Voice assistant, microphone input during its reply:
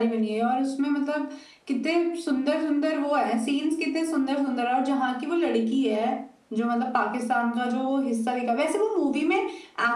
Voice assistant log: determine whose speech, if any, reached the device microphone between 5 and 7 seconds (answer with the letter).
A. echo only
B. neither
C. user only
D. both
A